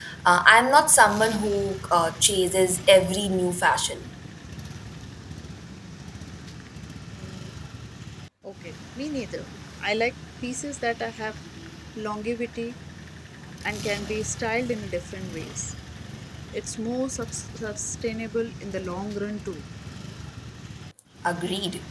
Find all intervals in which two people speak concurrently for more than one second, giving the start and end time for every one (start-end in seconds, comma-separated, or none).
none